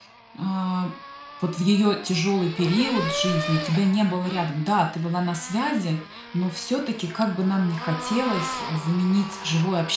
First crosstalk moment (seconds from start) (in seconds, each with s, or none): none